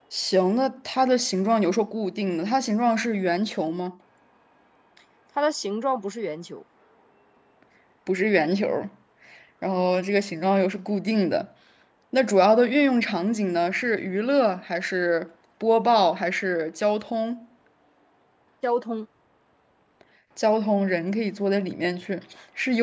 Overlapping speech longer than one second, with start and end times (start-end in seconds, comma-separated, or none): none